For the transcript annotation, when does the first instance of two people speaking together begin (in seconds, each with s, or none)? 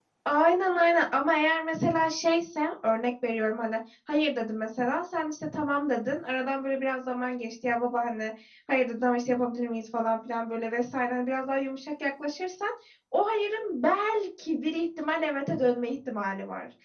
none